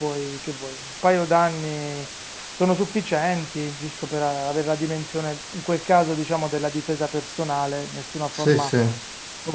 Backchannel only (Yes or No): Yes